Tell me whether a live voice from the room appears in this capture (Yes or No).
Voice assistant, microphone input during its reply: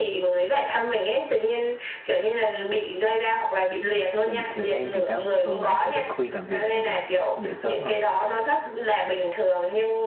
Yes